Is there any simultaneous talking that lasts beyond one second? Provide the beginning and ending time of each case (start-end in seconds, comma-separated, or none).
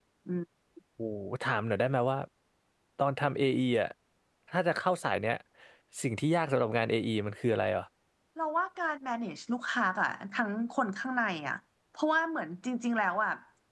none